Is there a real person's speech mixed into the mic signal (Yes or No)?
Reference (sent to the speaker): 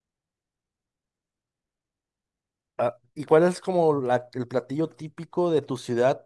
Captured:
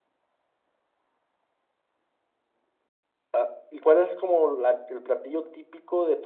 No